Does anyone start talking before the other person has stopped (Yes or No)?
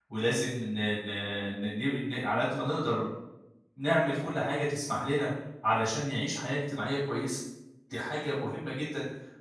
No